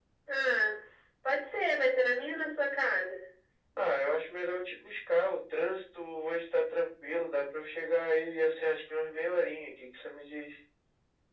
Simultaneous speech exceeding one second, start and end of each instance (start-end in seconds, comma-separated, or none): none